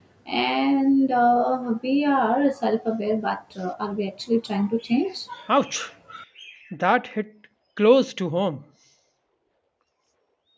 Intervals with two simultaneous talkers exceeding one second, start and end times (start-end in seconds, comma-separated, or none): none